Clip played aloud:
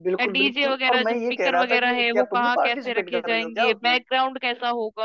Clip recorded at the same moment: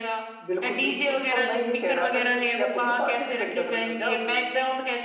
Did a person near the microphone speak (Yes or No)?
No